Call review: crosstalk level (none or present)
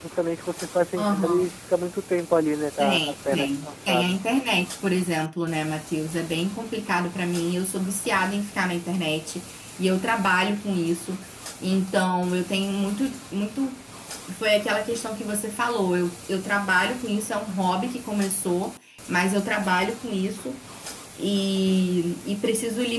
present